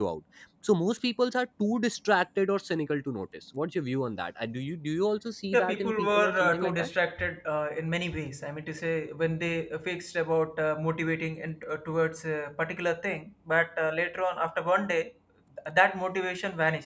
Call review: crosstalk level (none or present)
present